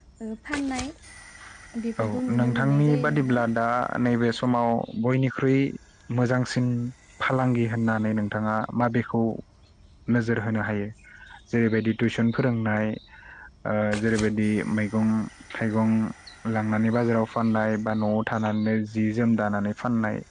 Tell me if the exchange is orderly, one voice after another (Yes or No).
No